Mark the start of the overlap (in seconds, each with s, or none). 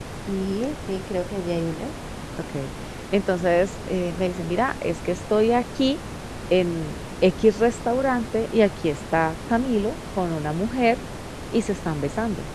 none